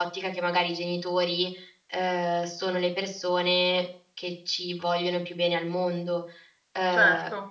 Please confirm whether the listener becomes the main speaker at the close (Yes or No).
No